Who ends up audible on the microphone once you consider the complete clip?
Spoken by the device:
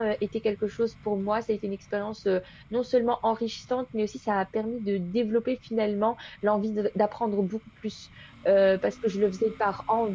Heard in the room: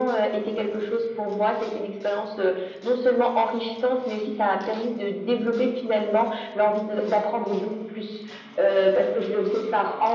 echo only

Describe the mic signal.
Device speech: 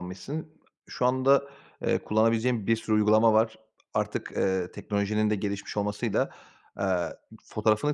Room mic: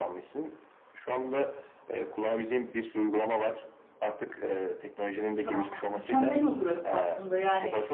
both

